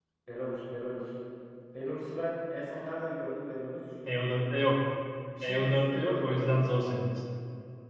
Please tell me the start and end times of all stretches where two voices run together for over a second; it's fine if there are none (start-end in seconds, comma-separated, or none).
5.4-6.6